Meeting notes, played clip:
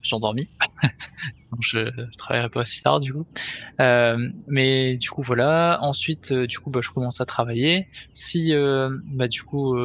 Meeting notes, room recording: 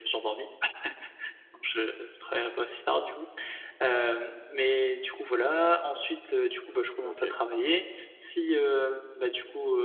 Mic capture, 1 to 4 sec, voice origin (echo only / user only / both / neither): echo only